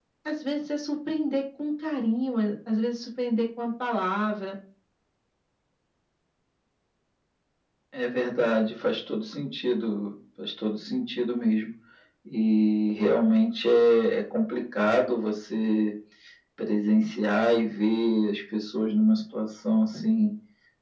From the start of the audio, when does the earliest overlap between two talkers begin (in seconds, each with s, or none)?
none